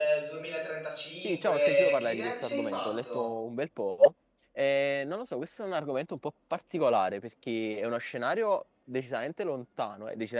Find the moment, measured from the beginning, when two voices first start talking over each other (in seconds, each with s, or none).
1.2 s